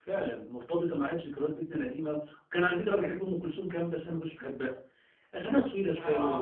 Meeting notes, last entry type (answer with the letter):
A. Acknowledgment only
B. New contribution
A